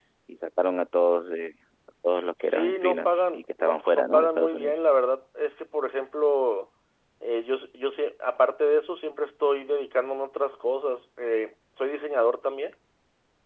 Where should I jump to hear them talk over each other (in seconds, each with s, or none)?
2.4 s